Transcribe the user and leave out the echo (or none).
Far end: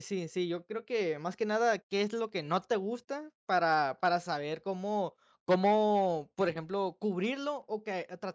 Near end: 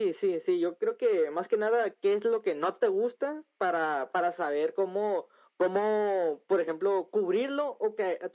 none